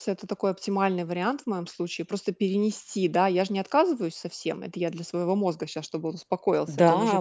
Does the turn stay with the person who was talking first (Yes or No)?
No